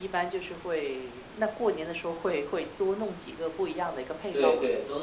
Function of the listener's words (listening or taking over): taking over